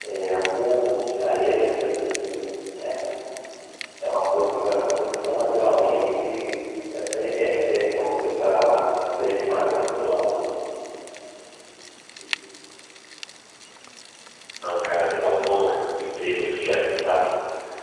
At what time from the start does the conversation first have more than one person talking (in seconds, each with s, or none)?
none